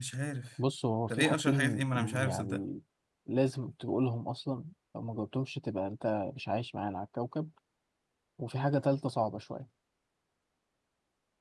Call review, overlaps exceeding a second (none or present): present